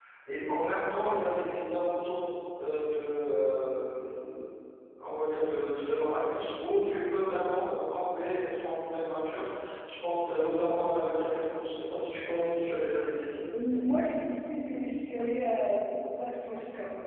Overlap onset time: none

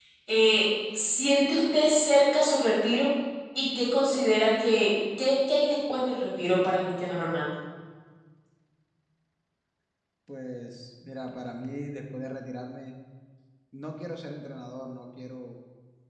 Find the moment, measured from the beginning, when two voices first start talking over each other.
none

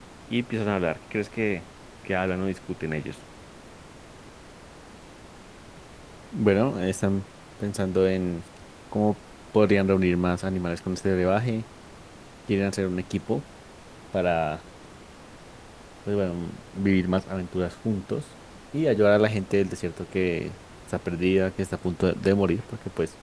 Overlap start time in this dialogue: none

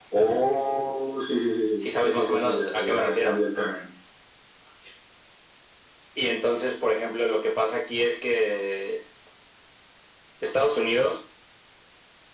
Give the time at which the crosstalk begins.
2 s

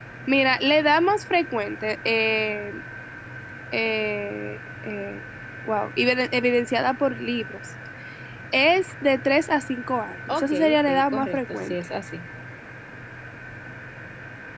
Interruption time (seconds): 10 s

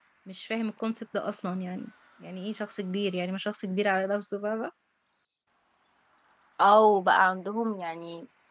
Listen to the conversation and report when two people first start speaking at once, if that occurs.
none

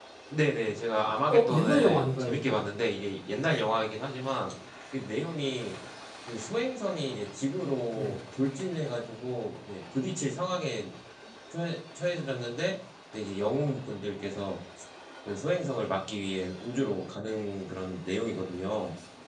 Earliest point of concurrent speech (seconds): 1 s

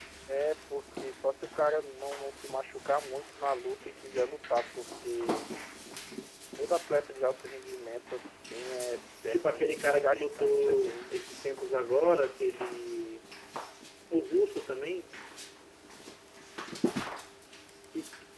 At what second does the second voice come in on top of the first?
9 s

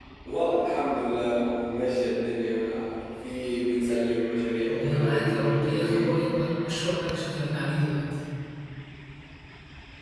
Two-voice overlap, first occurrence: 5 s

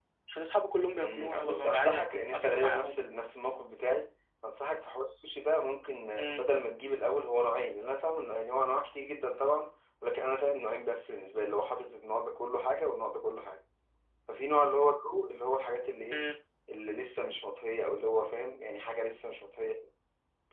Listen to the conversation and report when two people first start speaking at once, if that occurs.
1 s

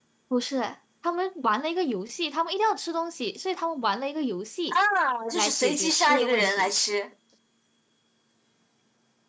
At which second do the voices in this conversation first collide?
5 s

